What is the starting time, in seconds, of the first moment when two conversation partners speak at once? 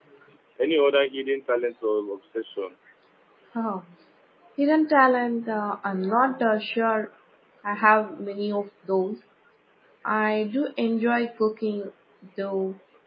none

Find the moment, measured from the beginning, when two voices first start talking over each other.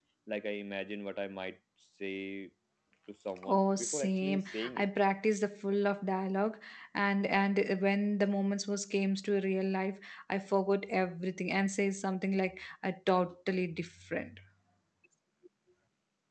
3.5 s

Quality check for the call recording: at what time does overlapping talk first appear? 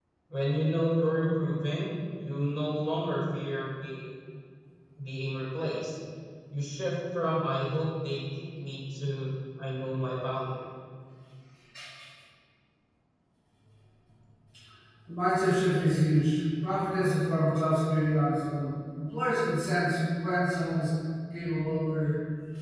none

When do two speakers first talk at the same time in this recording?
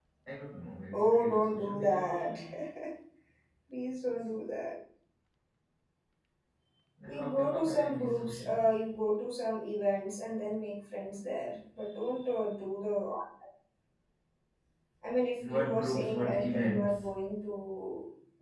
0.9 s

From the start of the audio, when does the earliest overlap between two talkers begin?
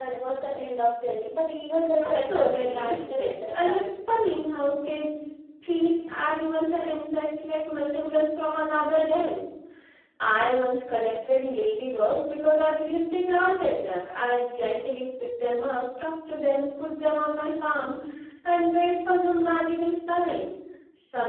2.0 s

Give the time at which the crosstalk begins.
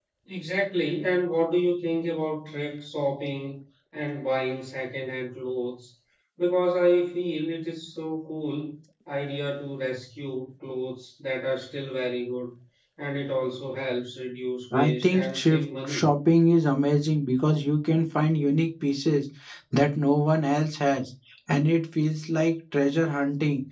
14.7 s

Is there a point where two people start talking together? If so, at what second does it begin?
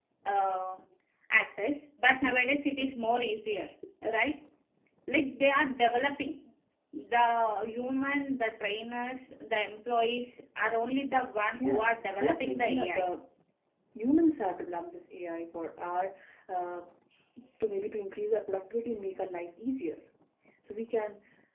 11.6 s

